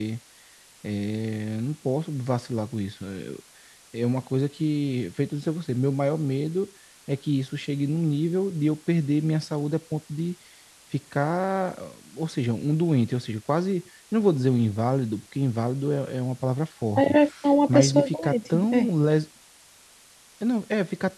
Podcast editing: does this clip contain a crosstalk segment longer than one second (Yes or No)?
Yes